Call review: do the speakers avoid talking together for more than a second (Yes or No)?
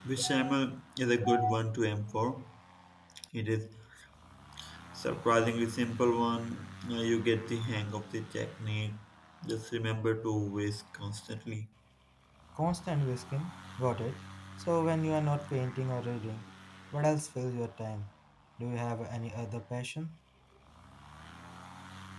Yes